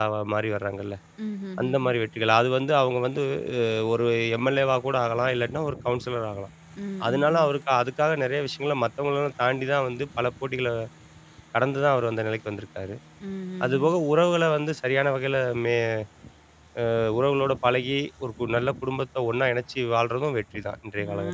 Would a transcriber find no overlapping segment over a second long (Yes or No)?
Yes